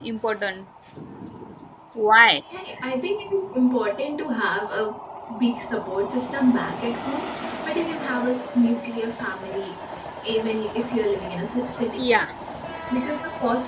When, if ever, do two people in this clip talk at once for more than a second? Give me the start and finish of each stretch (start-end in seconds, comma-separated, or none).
none